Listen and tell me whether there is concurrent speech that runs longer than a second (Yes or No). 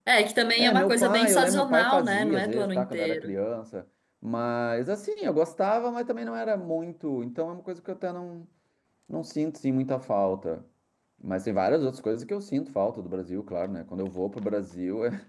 Yes